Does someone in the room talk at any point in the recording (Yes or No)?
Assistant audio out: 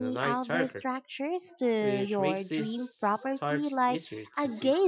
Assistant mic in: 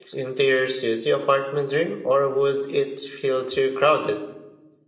Yes